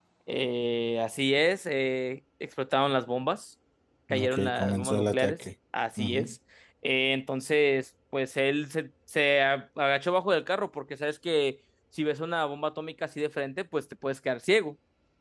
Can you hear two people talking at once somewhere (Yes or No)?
Yes